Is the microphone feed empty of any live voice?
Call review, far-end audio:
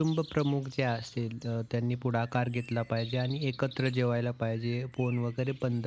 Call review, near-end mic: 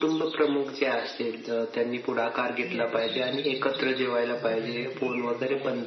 No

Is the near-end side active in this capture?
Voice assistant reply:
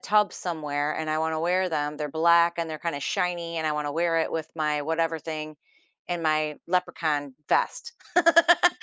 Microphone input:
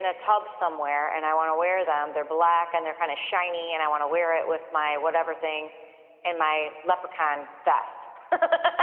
No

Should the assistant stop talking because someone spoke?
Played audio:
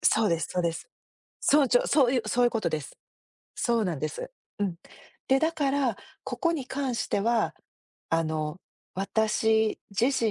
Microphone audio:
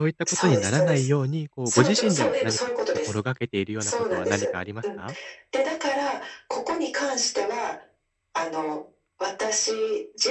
Yes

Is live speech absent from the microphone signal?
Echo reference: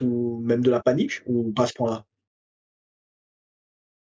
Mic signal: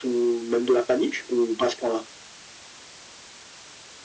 Yes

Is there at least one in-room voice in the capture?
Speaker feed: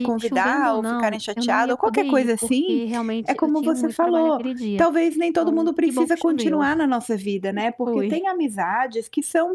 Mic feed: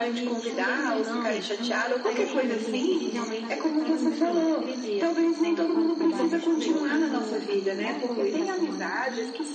Yes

